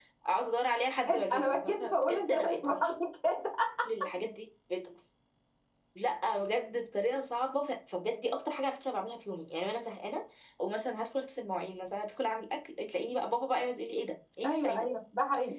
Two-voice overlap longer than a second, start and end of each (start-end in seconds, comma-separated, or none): 1.1-2.9